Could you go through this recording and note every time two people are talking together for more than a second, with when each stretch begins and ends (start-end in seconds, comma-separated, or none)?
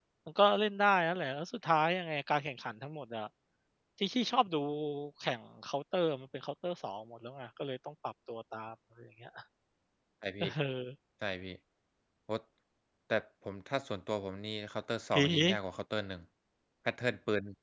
none